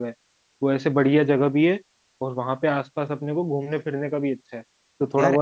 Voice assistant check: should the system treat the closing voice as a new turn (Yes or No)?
No